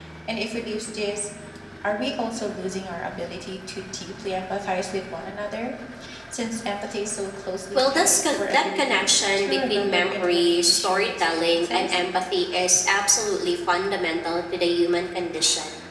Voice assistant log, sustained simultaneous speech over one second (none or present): present